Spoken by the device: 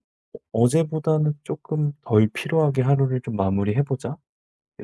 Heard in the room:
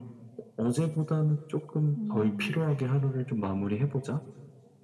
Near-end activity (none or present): present